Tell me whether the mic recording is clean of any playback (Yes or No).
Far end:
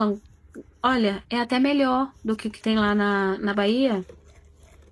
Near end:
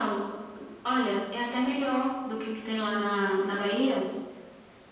No